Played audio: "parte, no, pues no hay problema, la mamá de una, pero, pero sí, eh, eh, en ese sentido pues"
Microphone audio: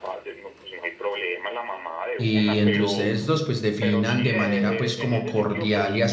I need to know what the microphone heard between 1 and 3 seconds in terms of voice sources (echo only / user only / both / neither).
both